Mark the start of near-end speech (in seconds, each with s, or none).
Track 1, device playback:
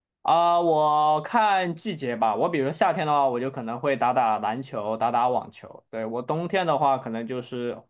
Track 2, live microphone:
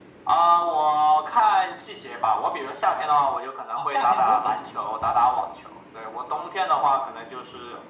3.7 s